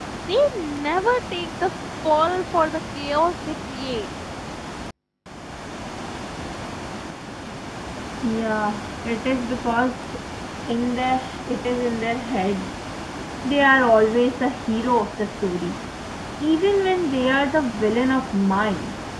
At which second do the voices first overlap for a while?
none

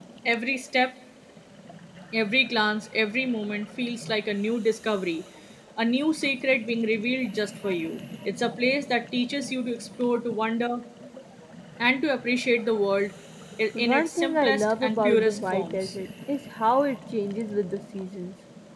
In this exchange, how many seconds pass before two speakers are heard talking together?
13.8 s

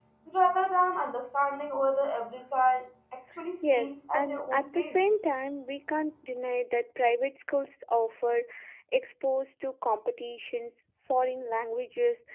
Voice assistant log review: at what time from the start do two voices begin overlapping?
3.6 s

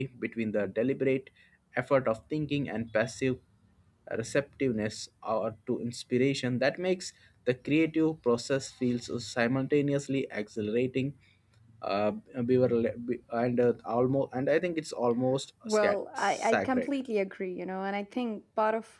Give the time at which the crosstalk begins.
15.6 s

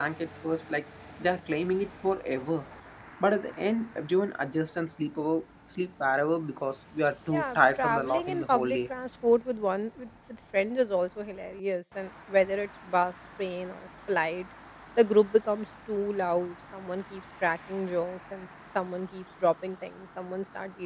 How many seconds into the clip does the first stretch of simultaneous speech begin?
7.3 s

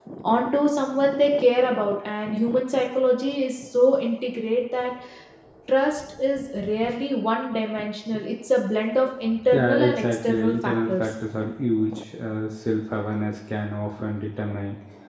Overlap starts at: 9.5 s

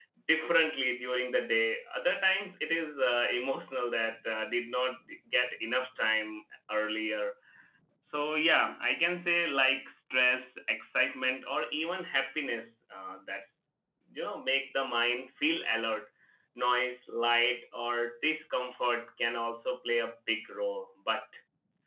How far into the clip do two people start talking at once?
none

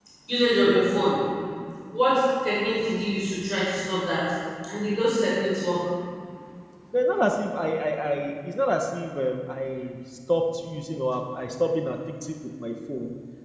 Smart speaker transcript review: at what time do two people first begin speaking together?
none

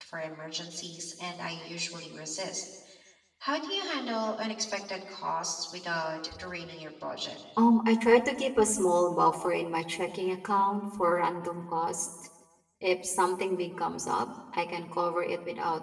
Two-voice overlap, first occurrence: none

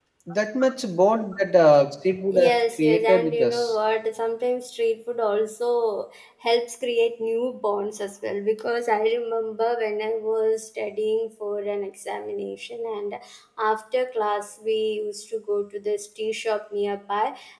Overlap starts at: 2.3 s

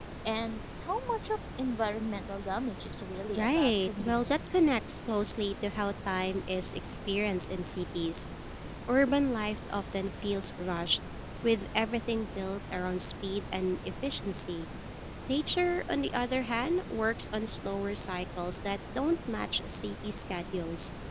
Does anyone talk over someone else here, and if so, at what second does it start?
3.4 s

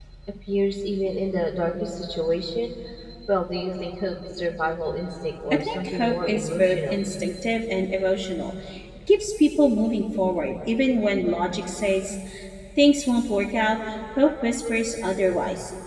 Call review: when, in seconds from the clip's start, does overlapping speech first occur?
5.7 s

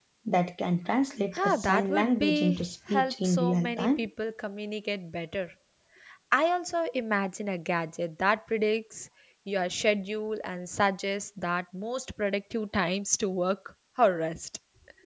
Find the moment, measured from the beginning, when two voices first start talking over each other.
1.3 s

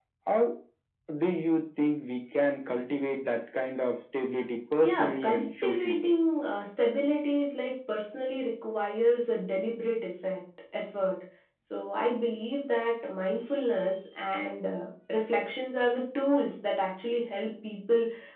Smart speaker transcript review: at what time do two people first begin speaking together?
4.8 s

